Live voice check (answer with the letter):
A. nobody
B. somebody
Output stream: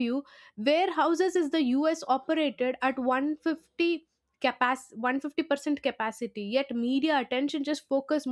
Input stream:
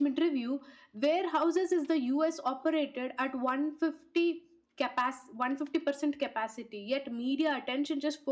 A